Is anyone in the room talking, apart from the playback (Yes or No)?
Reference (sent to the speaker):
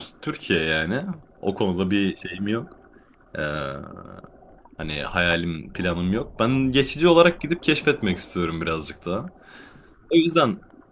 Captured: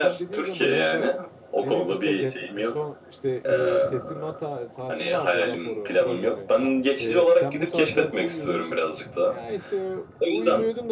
Yes